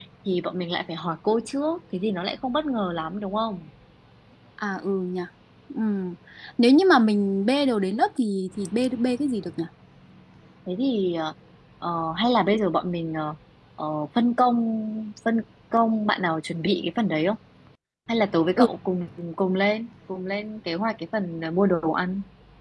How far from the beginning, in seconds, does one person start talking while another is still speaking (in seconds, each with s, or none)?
none